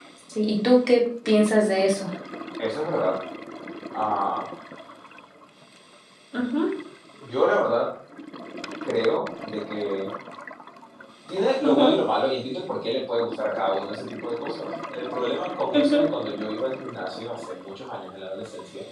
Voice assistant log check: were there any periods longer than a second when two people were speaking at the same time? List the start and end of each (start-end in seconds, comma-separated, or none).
none